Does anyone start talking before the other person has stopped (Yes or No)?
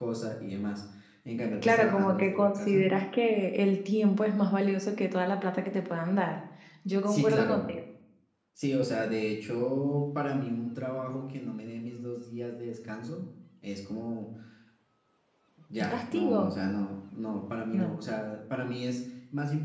Yes